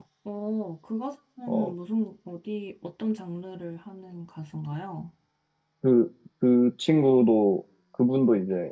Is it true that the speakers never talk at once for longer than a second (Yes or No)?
Yes